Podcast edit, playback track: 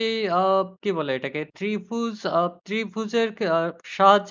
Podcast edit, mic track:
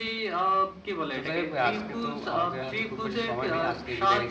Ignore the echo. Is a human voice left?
Yes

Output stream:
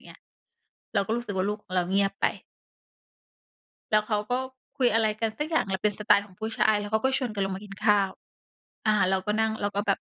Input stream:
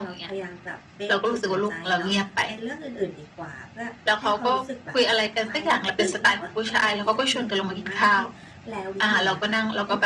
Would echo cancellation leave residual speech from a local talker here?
Yes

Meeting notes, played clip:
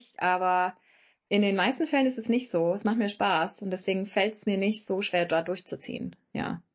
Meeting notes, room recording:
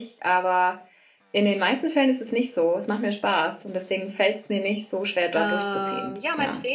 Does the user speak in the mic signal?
Yes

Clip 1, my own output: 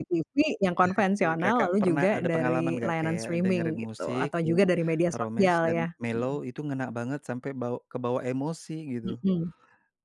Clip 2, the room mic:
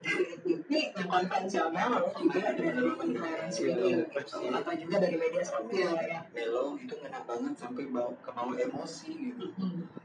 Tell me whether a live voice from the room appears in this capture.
Yes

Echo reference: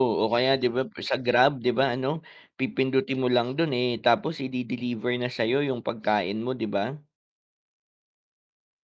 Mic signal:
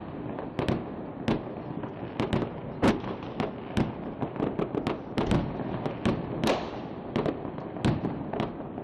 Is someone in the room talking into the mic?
No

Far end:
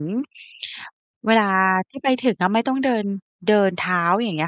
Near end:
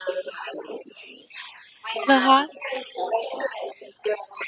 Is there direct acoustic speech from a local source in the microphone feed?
Yes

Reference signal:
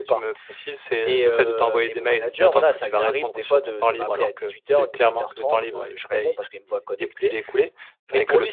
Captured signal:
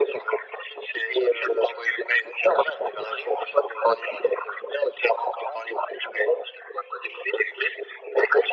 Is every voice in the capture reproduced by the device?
Yes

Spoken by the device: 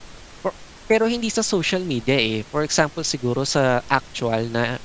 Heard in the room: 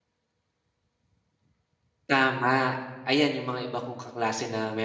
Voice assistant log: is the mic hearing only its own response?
No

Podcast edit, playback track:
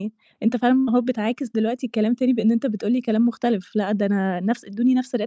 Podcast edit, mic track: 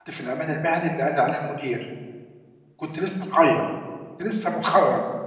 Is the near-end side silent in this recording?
No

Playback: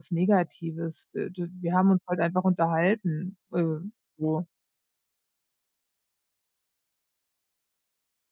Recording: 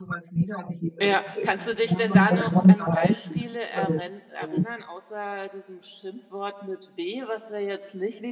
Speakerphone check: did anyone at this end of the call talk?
Yes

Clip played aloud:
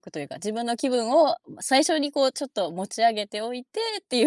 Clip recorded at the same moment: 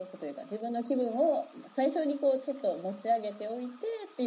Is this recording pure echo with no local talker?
Yes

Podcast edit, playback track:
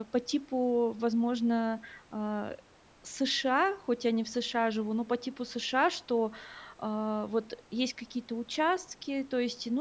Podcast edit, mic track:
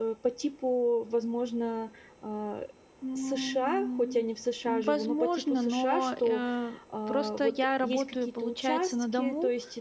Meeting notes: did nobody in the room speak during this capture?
No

